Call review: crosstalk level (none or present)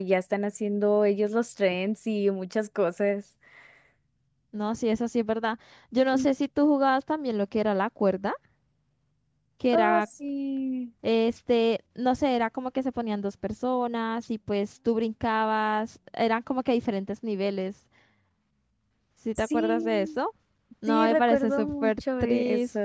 present